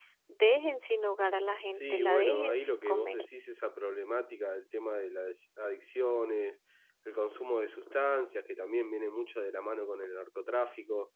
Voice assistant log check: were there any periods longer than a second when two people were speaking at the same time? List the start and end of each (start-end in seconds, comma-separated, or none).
1.7-3.2